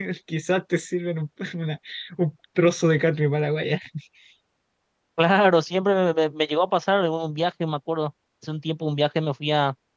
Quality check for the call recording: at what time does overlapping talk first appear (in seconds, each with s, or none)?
none